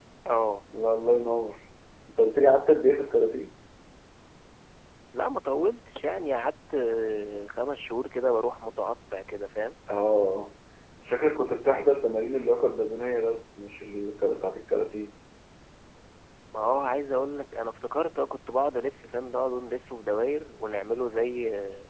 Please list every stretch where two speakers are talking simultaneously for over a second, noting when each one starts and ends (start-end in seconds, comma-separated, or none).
none